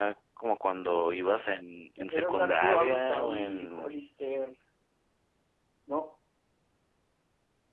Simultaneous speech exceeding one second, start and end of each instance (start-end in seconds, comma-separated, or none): 2.1-3.9